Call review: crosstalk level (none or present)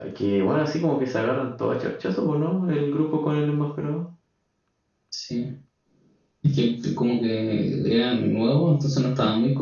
none